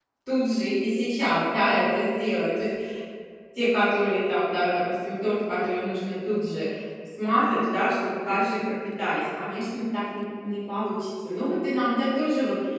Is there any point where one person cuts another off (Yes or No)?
No